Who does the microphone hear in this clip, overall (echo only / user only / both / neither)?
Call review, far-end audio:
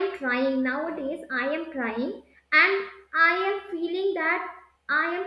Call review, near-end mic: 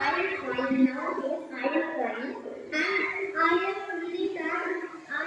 echo only